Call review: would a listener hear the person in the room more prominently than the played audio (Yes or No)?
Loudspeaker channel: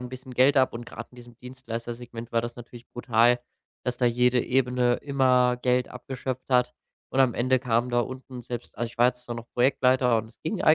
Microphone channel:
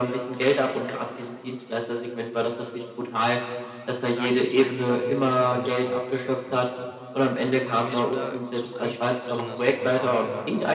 No